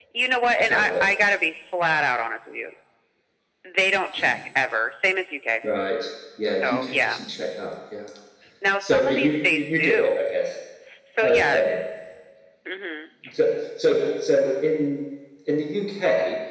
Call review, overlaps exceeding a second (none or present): present